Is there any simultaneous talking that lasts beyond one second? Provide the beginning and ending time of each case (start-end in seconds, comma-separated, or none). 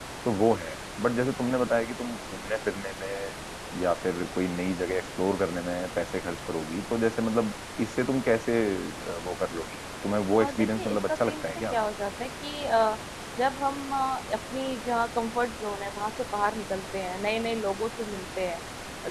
10.4-11.8